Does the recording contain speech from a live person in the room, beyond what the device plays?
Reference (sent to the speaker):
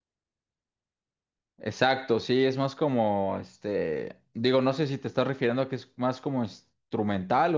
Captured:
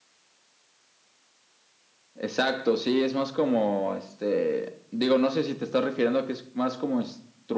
No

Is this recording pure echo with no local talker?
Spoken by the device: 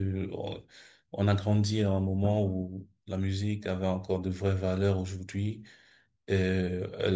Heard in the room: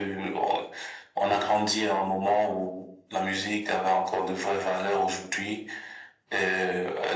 Yes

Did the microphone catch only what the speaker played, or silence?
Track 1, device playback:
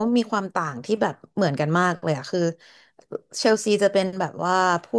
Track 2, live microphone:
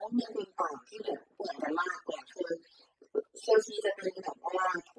Yes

